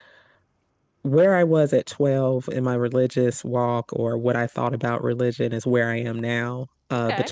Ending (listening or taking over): listening